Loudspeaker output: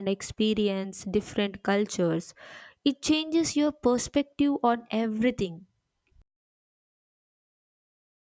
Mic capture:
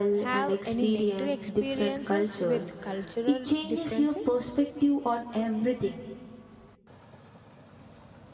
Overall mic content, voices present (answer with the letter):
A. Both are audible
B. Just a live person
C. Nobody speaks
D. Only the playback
A